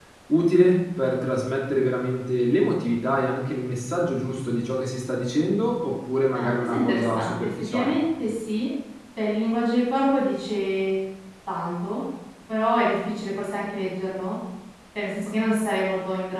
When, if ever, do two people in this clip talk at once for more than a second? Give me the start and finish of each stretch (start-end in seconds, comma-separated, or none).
6.3-8.0